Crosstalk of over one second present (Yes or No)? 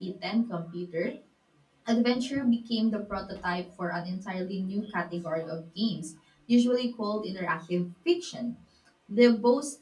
No